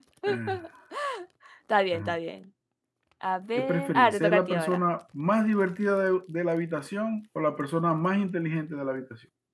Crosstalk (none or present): present